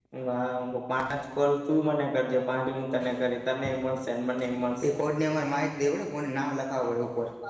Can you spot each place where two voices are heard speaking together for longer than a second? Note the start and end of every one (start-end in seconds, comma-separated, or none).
none